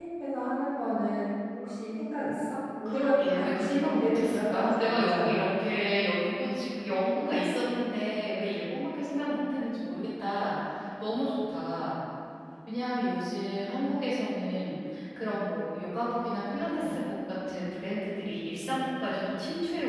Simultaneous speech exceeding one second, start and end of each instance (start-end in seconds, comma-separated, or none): 2.8-5.5